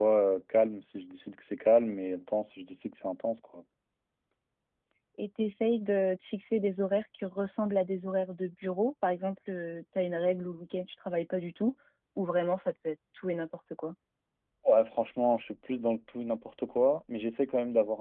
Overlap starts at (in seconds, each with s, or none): none